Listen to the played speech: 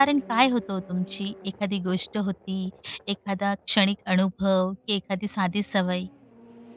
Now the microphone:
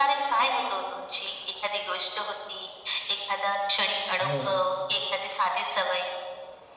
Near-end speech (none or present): present